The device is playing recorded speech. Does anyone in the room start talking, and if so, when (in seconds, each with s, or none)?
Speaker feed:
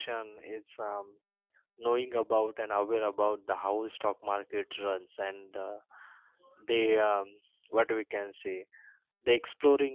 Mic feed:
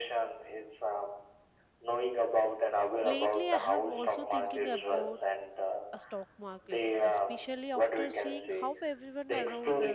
3.0 s